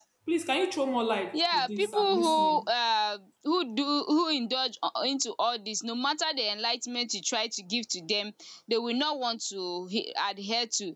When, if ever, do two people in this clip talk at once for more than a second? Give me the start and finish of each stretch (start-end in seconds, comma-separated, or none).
1.3-2.6